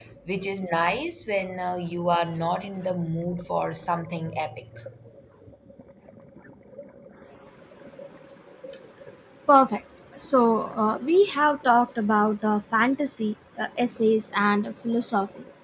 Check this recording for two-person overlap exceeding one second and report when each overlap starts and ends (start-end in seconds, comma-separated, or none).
none